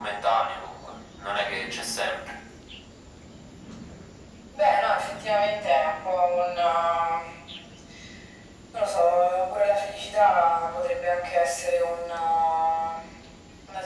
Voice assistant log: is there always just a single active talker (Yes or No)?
Yes